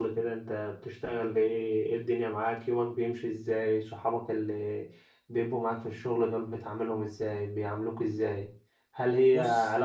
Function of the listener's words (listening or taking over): listening